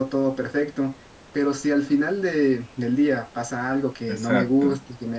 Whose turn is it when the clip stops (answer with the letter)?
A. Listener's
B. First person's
B